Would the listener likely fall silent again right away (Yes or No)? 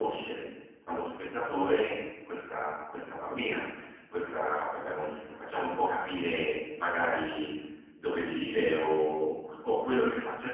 Yes